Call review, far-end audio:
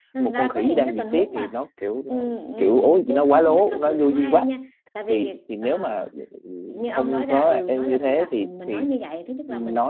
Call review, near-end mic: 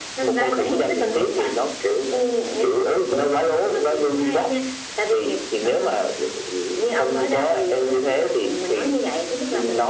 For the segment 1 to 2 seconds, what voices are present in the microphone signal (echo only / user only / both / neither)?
echo only